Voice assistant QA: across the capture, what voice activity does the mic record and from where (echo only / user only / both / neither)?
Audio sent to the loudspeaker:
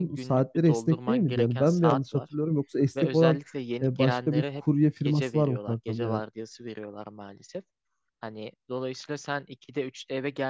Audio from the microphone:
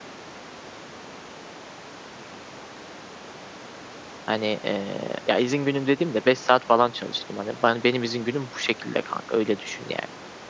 user only